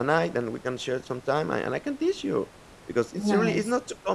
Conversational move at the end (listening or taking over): listening